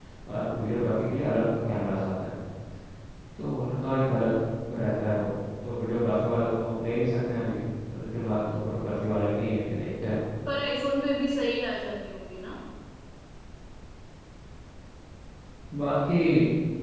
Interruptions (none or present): none